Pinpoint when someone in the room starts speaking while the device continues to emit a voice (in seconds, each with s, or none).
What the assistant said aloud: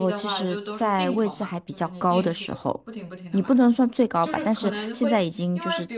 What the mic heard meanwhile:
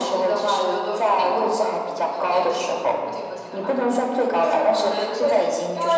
none